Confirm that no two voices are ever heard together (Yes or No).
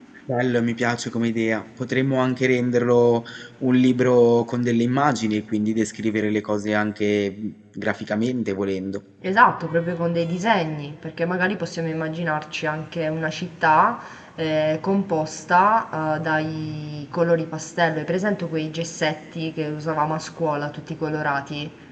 Yes